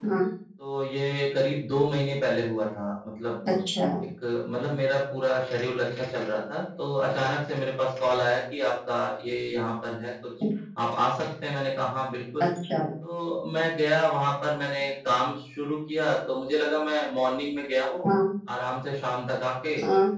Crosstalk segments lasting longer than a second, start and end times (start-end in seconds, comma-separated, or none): none